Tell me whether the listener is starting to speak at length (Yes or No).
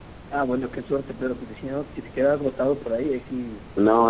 Yes